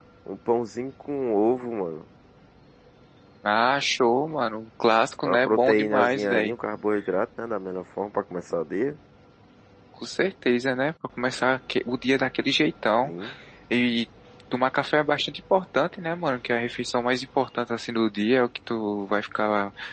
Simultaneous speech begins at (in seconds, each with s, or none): 5.2 s